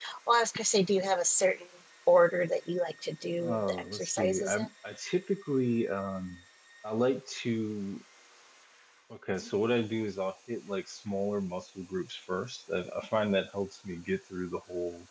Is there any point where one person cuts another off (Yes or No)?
Yes